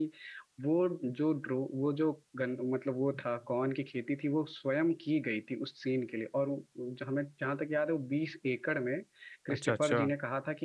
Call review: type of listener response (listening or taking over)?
listening